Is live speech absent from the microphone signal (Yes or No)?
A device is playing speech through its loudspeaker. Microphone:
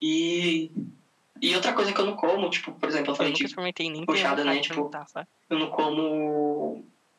No